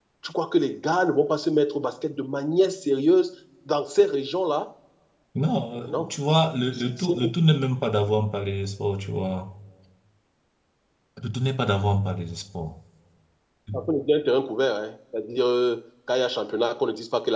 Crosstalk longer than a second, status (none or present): none